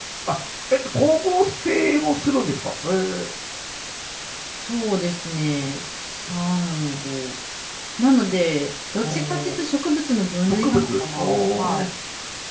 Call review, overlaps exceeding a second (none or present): present